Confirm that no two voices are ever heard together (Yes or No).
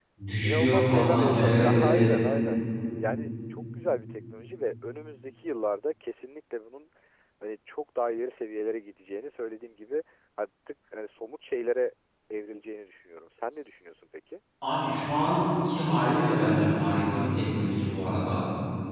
No